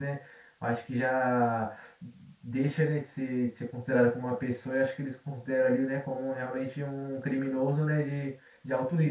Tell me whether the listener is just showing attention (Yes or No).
No